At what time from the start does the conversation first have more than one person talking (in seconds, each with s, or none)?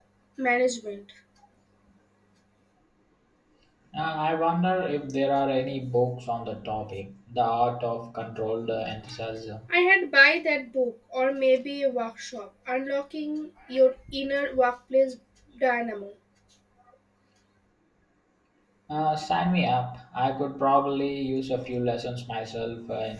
none